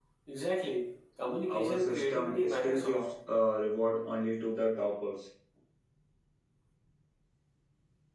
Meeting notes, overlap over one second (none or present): present